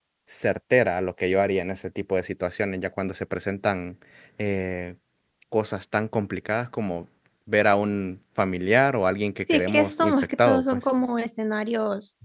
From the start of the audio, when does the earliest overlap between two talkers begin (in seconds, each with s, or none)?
9.5 s